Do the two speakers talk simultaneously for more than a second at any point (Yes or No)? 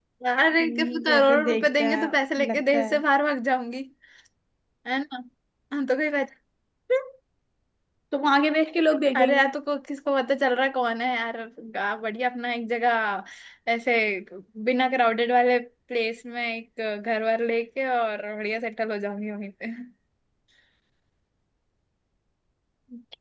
Yes